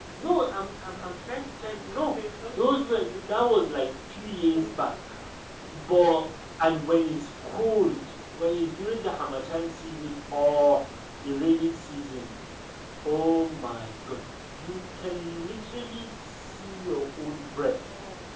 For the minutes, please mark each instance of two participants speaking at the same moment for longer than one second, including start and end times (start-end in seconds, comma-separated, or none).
none